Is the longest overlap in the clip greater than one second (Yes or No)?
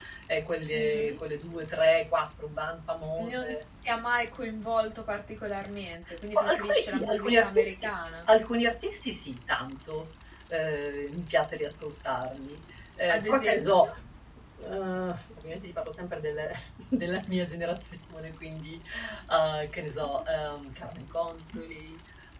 Yes